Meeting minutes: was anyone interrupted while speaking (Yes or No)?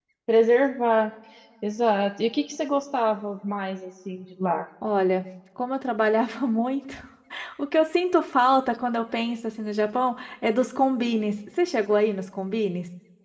No